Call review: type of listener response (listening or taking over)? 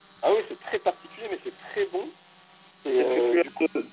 taking over